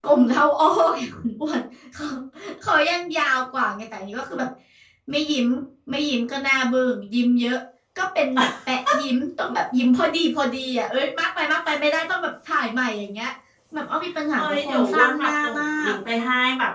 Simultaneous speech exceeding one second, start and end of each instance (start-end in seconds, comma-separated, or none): 14.3-15.9